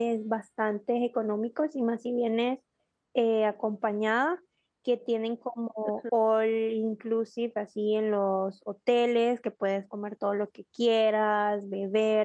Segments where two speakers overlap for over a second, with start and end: none

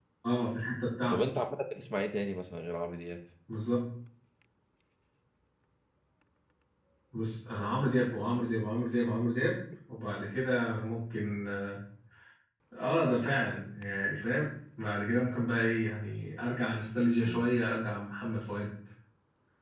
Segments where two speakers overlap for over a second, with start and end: none

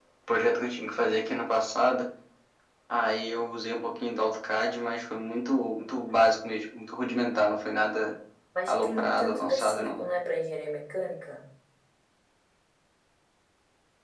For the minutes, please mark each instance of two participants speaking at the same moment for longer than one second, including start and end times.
8.7-10.0

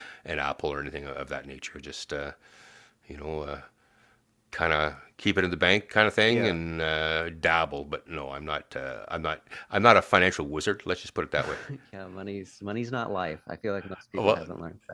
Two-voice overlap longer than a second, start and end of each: none

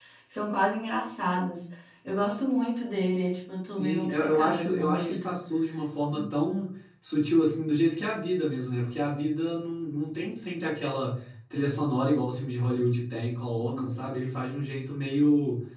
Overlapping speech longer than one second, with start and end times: 3.8-5.4

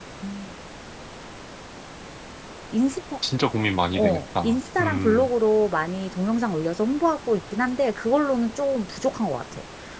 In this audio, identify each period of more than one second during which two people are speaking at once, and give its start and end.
3.9-5.3

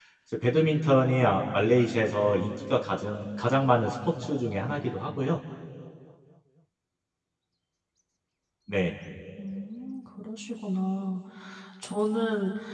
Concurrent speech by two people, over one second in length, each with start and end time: none

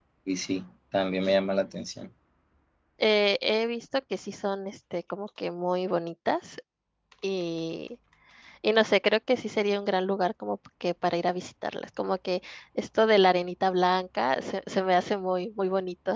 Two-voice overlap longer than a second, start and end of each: none

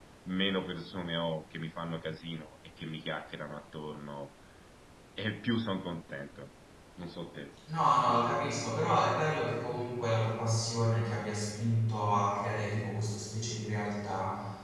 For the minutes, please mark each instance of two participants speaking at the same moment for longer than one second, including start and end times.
none

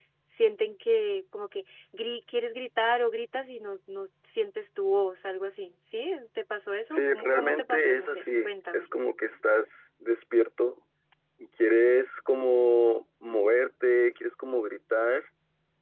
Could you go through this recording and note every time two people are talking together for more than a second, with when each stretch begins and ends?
7.0-8.9

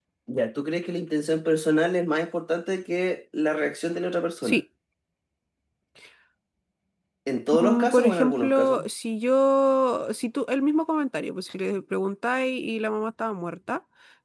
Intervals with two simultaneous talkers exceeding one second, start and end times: 7.5-8.8

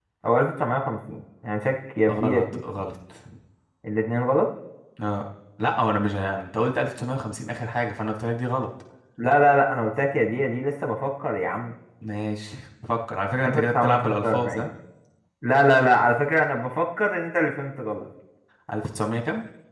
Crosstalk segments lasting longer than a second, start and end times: 13.5-14.7

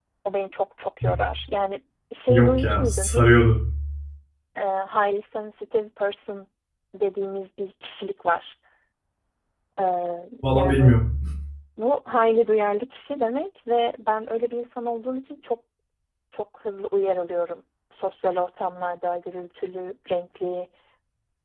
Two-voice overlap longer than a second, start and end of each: 2.3-3.6

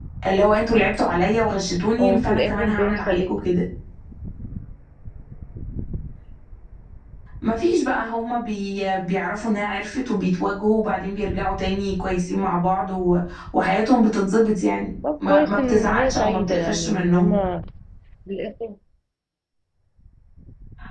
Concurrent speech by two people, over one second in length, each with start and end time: 2.0-3.4, 15.2-17.4

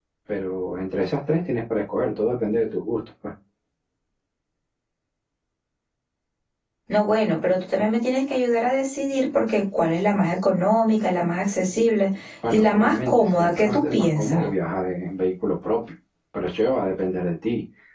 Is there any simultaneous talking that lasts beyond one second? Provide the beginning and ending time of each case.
12.5-14.5

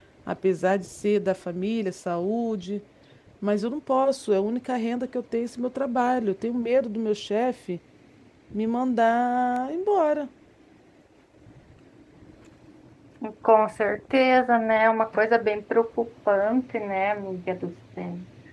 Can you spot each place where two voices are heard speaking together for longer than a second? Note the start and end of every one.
none

